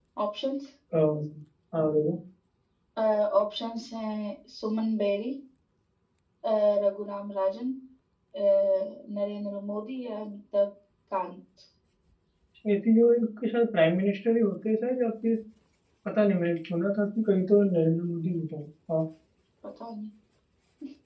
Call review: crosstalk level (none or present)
none